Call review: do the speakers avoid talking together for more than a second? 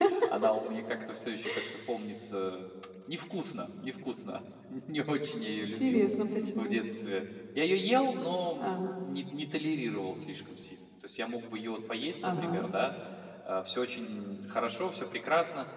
Yes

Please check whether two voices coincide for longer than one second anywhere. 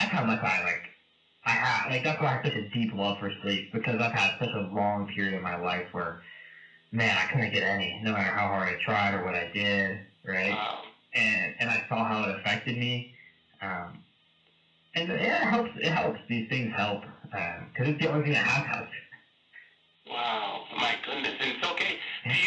No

